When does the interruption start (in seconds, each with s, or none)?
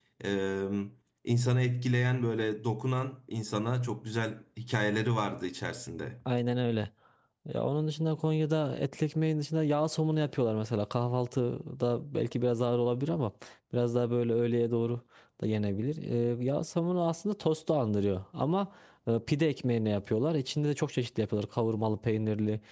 none